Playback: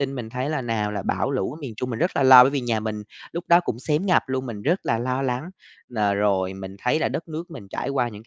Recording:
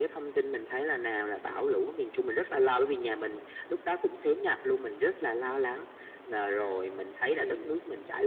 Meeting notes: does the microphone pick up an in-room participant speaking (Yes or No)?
Yes